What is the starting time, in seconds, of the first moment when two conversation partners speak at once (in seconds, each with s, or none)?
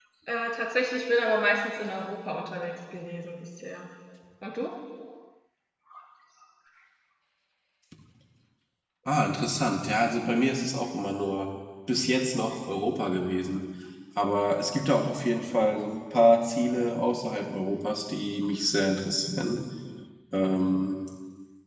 none